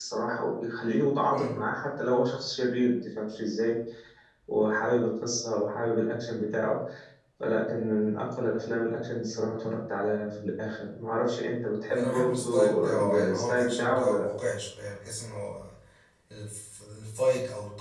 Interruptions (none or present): present